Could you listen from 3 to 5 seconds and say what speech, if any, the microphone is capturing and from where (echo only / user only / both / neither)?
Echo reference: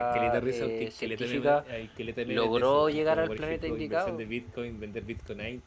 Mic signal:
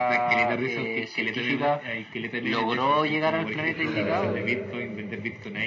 both